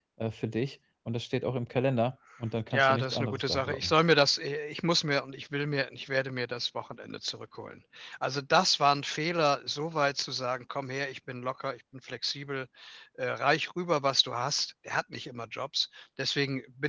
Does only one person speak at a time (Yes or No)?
No